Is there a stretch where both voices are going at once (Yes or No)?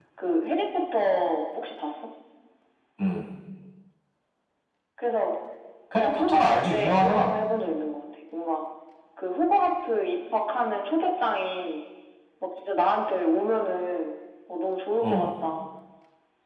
Yes